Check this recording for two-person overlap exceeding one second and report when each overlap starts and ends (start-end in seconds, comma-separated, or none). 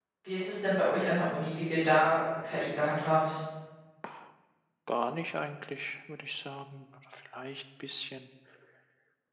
none